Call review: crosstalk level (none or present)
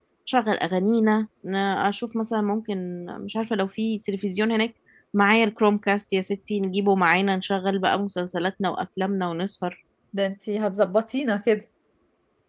none